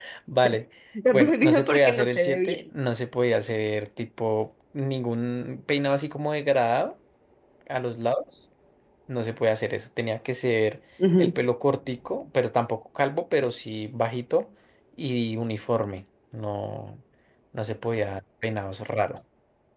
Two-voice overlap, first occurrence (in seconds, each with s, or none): 1.1 s